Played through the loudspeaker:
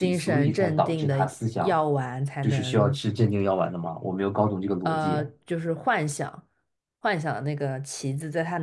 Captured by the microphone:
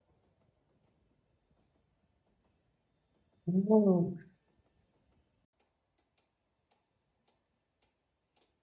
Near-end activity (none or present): present